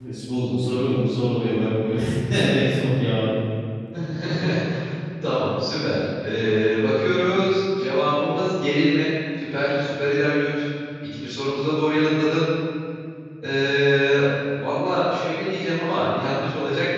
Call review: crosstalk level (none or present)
none